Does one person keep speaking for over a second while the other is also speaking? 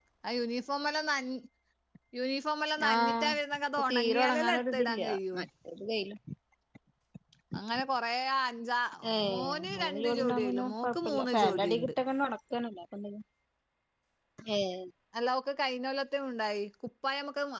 Yes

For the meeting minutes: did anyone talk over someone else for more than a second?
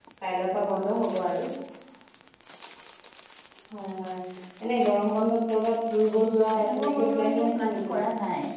Yes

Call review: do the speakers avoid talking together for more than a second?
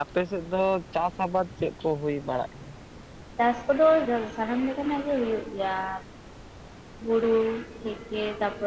Yes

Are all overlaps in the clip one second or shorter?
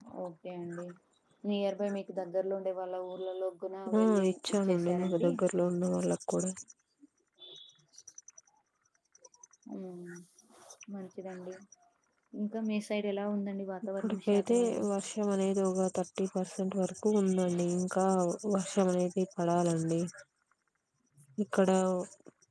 No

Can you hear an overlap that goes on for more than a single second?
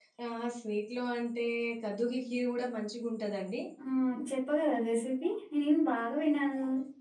No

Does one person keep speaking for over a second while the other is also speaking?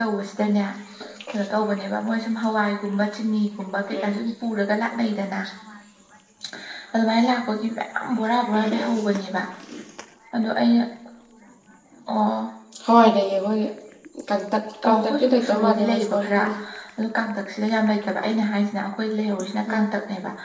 Yes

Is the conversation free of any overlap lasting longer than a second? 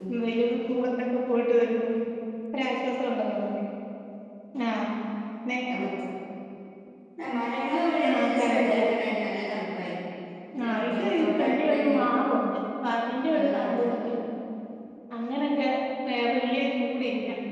No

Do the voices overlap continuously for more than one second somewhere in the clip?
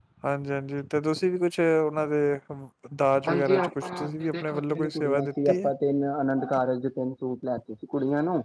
Yes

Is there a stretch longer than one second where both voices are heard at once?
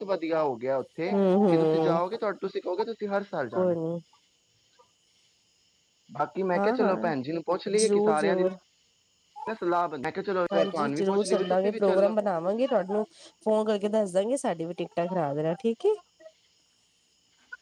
Yes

